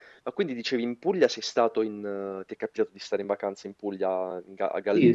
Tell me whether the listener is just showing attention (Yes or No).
No